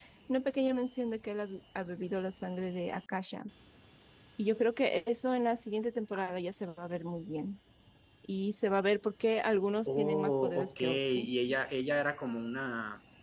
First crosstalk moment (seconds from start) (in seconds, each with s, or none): 9.9 s